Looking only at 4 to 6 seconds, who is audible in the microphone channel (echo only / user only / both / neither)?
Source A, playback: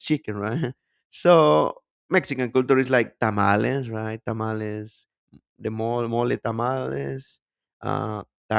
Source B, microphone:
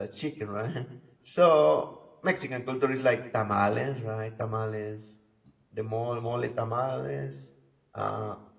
echo only